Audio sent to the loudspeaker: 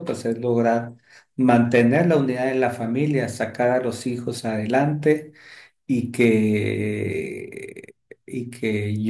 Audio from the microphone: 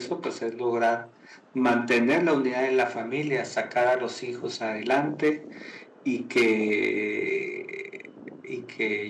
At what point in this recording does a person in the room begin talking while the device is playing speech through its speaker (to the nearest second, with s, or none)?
none